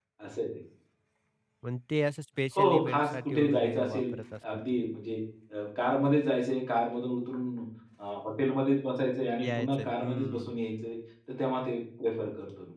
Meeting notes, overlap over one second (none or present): present